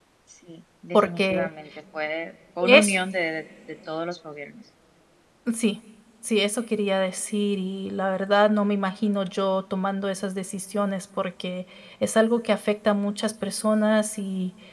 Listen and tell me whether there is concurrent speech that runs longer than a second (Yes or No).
No